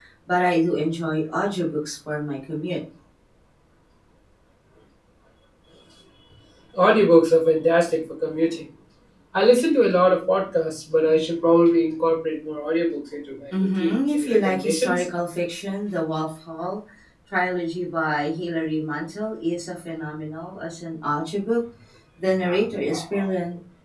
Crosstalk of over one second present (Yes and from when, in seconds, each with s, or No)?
Yes, from 13.5 s